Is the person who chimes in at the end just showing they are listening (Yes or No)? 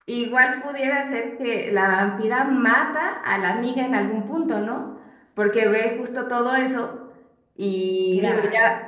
Yes